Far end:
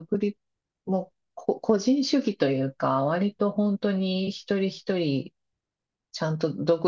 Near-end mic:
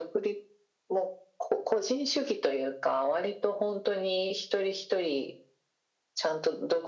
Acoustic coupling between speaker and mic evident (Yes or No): Yes